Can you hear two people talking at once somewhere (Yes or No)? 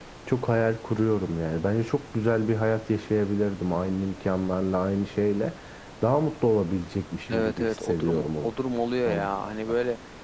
Yes